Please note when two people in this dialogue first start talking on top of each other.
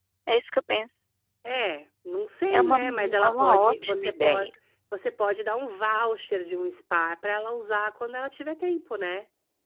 2.5 s

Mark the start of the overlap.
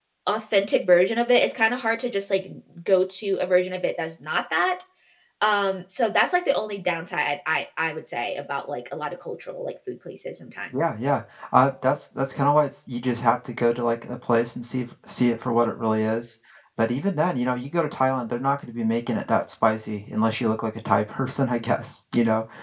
none

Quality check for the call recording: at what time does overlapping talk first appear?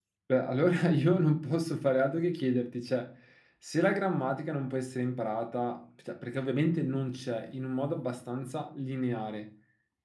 none

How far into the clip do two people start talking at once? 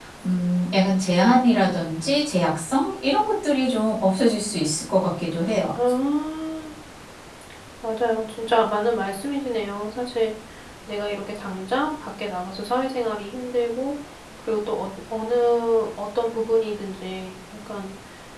none

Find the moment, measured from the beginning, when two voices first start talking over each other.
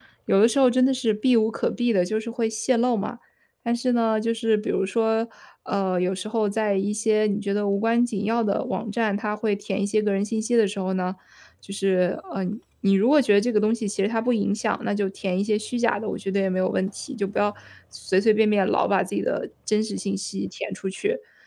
none

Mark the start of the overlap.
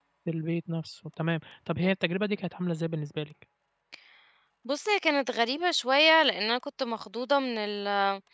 none

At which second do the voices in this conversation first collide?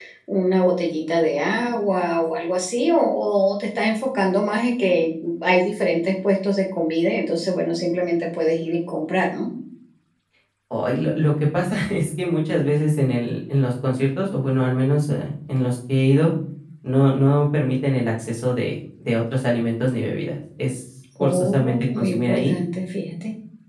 21.2 s

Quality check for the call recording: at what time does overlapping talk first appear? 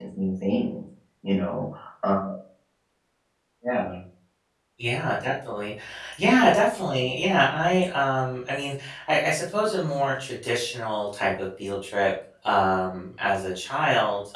none

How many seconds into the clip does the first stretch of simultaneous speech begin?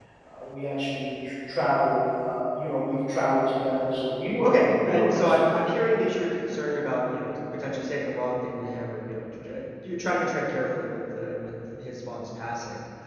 4.4 s

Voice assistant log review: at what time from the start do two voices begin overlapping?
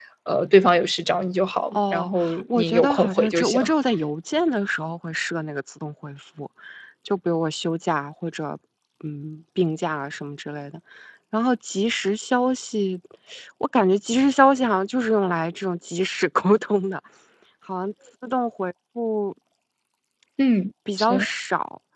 1.7 s

